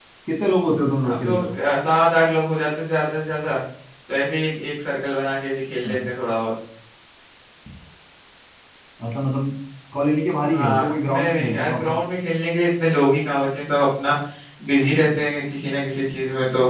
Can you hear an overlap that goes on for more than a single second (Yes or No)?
Yes